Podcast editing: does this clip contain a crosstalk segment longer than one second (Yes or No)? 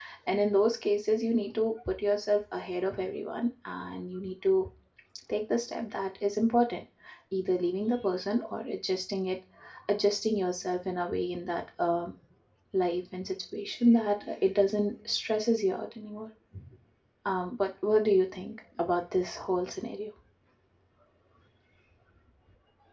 No